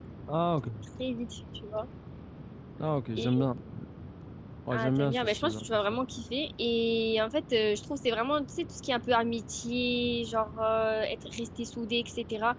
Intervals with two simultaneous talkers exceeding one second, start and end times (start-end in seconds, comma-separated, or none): 4.7-6.0